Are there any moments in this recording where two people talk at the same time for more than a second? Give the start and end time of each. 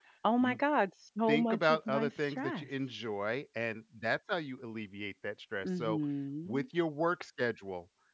1.3-2.7

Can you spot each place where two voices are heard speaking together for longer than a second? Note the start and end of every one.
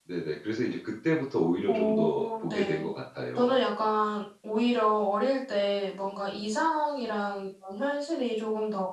1.7-2.9

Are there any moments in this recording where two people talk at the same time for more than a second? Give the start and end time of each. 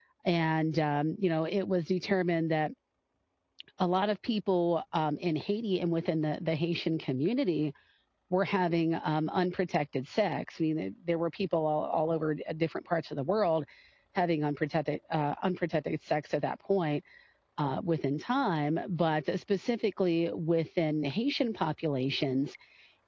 none

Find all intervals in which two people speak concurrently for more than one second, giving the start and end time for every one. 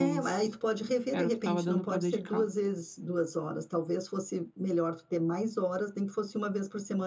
1.1-2.5

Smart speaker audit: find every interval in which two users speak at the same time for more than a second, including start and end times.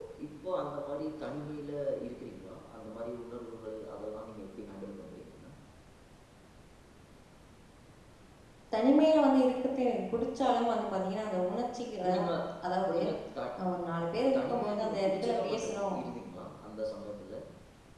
14.2-16.0

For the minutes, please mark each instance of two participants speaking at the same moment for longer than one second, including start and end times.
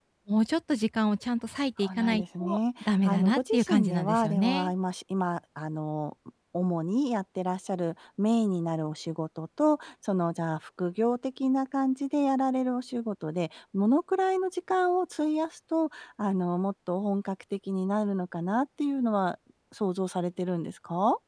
2.0-4.7

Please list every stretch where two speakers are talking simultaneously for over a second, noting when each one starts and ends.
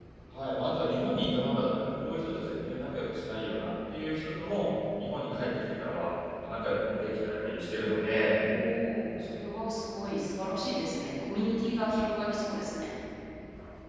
none

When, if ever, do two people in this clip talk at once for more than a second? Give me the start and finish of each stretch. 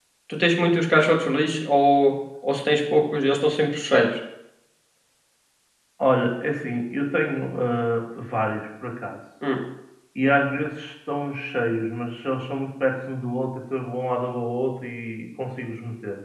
none

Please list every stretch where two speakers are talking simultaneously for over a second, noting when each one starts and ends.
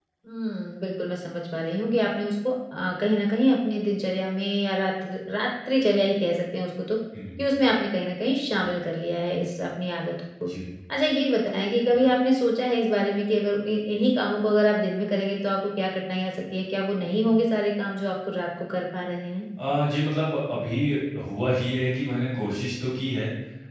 none

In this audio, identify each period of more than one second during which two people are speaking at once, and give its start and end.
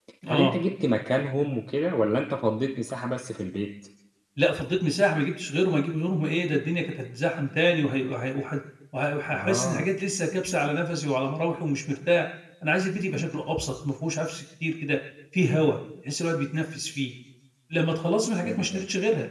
none

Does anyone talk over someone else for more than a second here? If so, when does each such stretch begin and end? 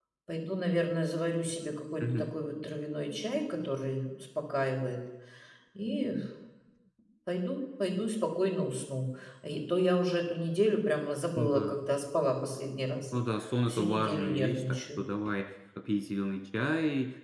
13.7-15.0

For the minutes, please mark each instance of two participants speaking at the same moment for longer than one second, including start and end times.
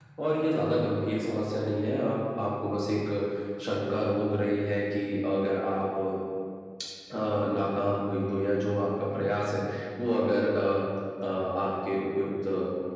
none

